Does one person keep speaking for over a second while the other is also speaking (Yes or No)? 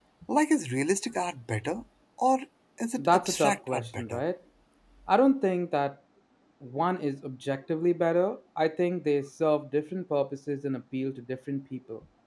Yes